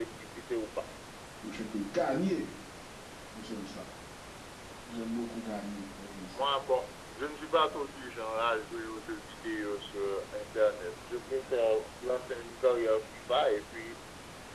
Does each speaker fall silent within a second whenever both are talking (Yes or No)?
Yes